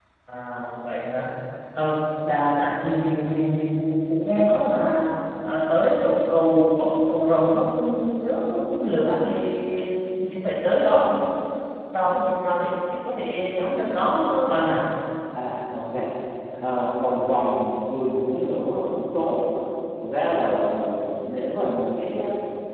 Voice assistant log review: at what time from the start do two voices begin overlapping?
none

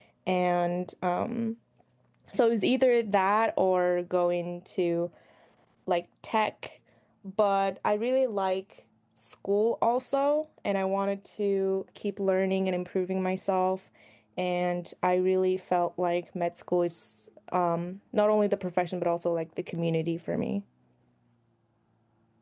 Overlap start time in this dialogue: none

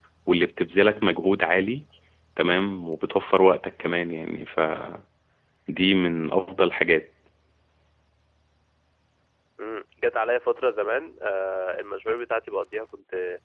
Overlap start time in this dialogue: none

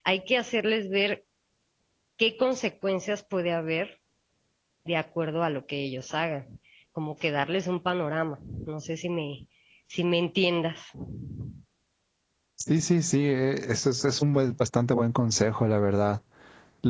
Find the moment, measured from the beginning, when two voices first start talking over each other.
none

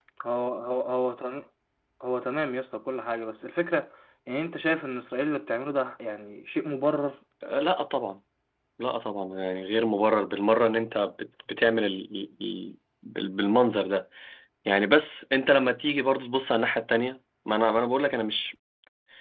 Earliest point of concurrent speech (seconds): none

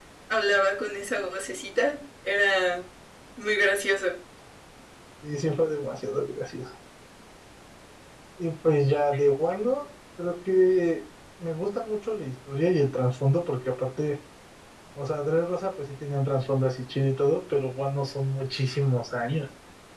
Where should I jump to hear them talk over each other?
none

